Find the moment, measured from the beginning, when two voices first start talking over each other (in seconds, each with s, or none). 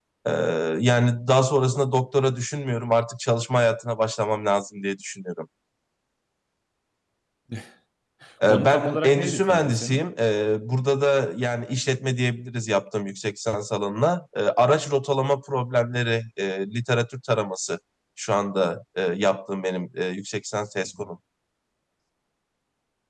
8.4 s